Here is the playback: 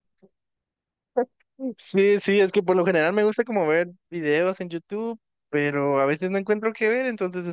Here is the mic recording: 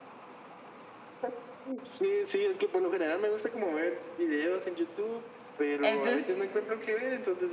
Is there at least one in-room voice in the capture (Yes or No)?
Yes